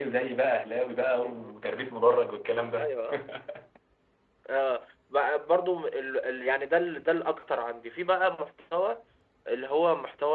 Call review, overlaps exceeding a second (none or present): none